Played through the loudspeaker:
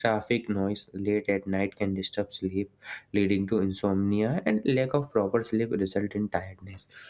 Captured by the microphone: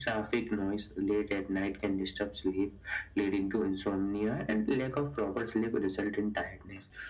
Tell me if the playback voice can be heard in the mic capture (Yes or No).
Yes